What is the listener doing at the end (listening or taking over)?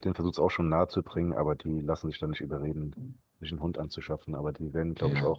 listening